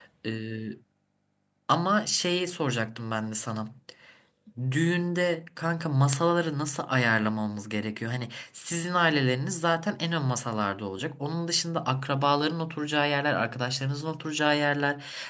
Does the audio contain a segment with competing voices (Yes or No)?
No